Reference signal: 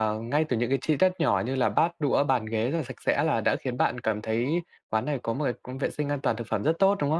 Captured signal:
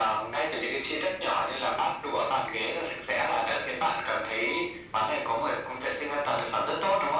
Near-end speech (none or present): none